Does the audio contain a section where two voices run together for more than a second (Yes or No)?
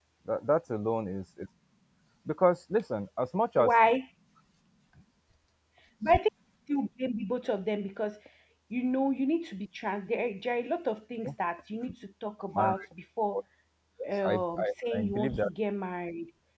Yes